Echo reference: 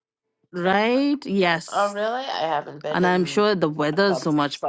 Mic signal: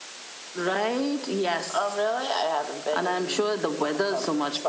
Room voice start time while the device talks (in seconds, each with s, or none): none